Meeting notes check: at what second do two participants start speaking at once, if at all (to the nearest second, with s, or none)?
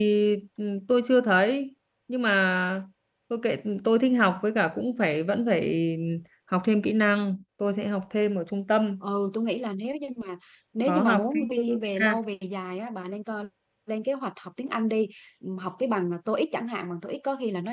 11 s